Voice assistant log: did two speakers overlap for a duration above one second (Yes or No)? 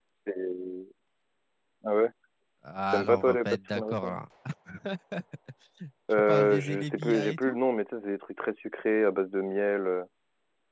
Yes